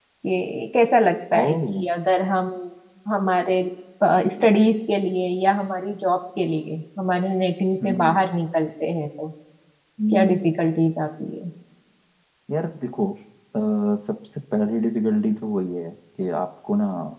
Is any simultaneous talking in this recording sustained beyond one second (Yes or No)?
No